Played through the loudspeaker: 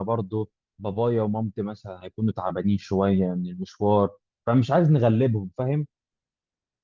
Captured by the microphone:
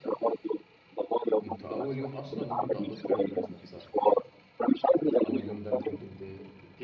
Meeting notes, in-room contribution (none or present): present